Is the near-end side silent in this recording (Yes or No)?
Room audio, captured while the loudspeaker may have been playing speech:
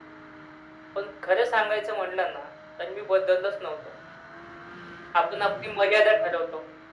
Yes